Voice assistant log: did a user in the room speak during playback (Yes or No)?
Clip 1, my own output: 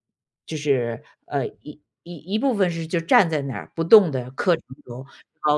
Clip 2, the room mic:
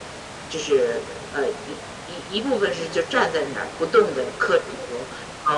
No